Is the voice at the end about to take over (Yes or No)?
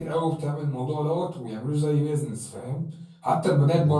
No